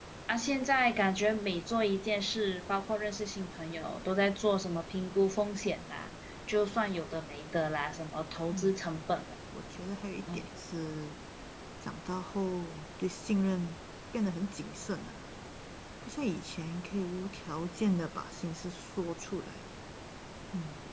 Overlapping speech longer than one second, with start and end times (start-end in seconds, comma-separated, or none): none